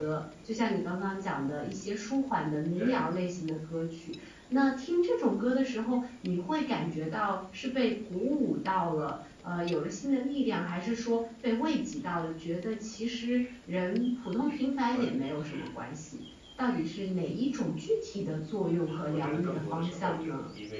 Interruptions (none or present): present